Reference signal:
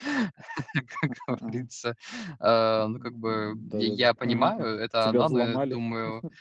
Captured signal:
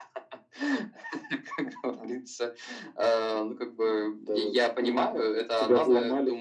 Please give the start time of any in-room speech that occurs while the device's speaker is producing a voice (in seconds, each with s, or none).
none